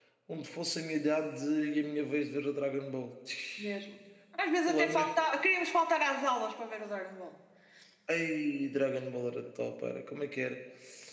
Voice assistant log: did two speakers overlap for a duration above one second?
No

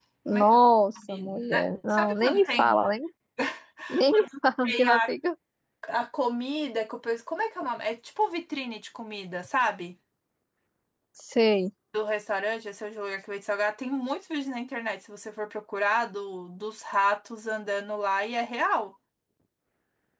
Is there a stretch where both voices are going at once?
Yes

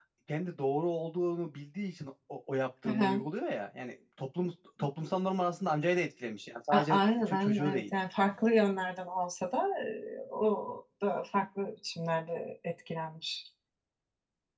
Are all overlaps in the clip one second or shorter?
No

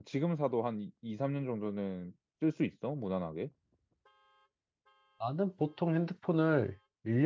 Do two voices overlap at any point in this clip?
No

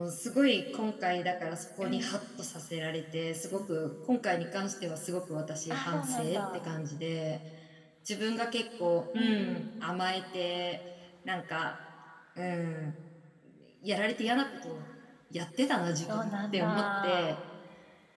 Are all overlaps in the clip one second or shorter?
No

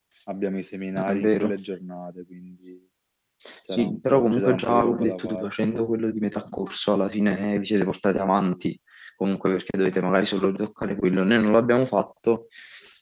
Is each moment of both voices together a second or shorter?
No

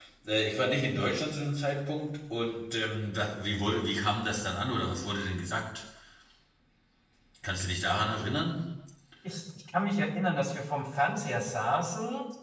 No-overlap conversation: Yes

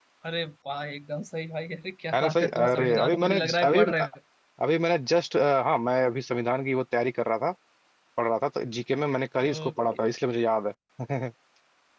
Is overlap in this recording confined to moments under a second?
No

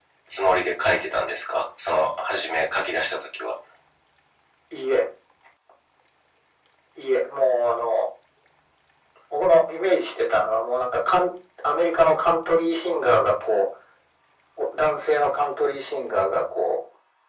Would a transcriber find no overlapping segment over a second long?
Yes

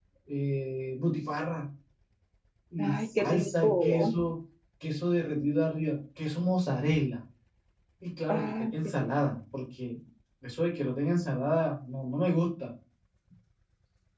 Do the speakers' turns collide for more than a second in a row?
Yes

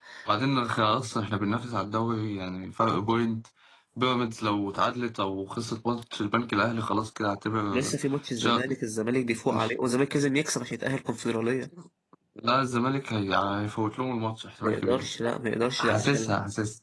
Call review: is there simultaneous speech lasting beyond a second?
No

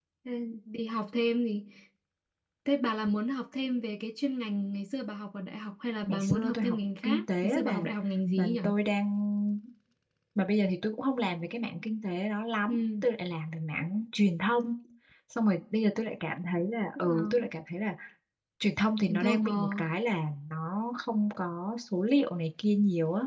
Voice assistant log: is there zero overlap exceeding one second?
No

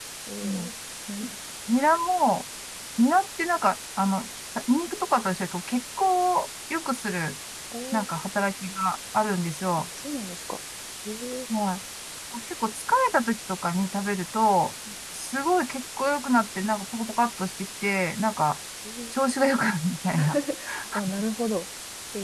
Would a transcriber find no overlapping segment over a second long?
Yes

